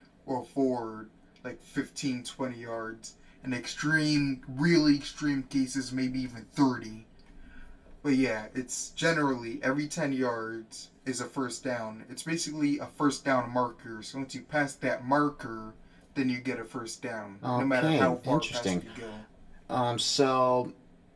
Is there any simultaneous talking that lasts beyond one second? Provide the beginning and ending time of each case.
17.6-18.8

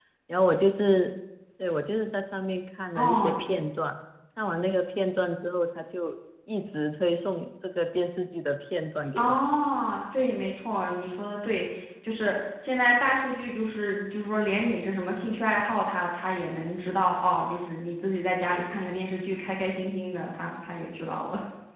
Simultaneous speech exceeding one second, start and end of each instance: none

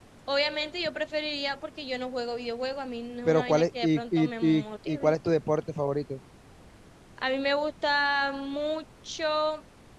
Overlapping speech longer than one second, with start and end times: 3.2-5.1

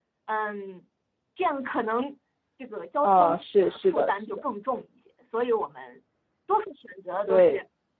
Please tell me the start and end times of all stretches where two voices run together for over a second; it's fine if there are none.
3.0-4.4

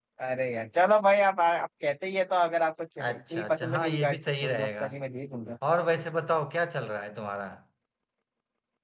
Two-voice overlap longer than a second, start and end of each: 3.0-4.8

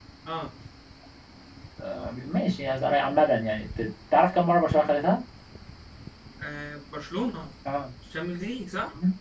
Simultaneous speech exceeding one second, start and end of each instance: none

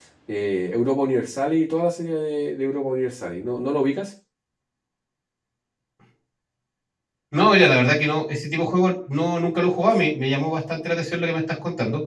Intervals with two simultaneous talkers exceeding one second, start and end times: none

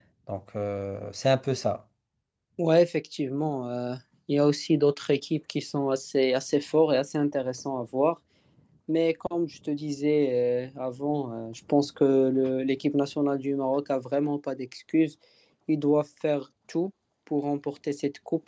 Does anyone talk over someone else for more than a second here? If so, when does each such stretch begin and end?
none

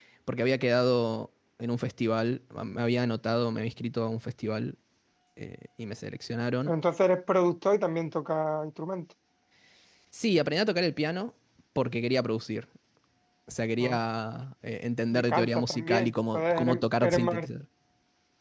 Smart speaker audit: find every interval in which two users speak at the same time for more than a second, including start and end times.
15.1-17.5

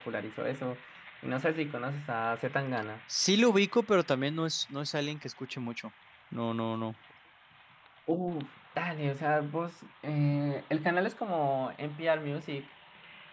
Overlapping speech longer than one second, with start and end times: none

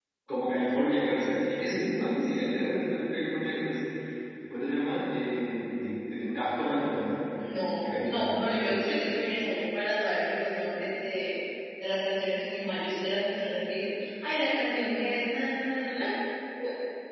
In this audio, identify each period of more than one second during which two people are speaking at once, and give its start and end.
7.8-9.0

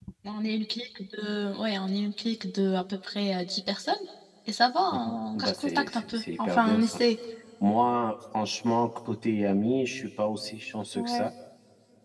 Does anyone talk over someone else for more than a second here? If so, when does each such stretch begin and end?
4.9-7.0

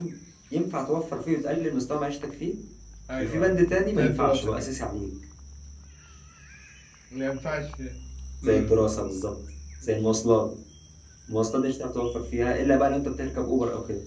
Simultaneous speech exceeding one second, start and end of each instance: 3.2-4.7

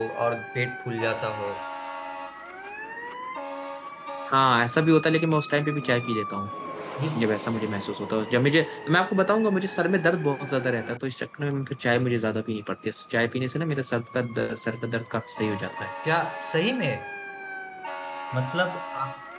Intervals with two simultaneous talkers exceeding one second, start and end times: none

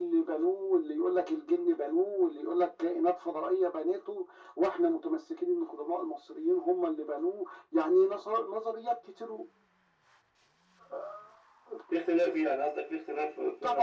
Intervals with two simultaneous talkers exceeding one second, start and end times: none

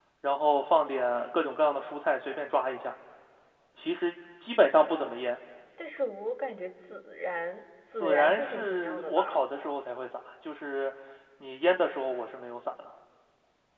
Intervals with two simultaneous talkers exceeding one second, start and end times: 8.0-9.4

